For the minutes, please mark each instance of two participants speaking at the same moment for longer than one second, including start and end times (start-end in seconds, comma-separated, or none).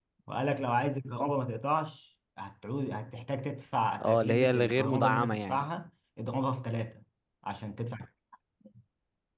4.0-5.7